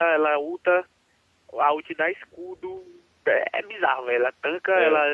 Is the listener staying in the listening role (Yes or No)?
Yes